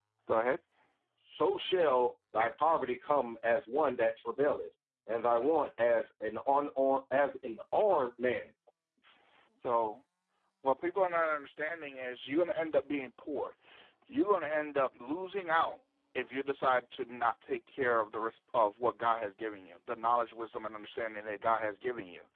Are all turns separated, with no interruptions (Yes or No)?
Yes